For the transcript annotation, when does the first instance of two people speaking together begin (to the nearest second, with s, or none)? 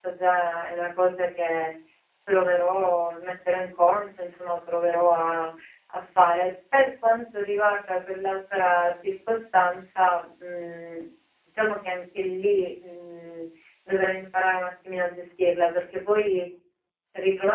none